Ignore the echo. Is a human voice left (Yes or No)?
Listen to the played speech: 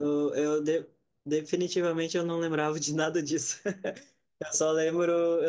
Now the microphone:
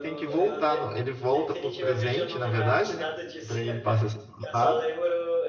Yes